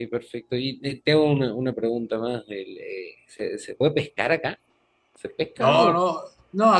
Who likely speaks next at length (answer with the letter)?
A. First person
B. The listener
B